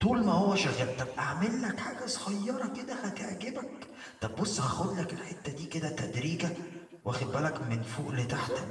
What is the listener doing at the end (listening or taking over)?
listening